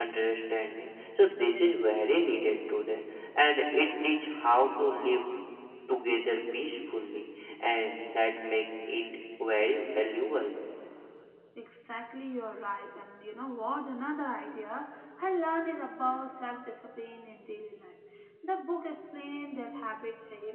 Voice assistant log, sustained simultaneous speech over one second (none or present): none